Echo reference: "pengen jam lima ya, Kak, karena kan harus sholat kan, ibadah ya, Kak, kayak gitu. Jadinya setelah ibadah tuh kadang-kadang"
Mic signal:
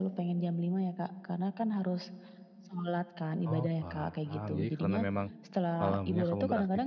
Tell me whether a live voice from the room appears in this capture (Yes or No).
Yes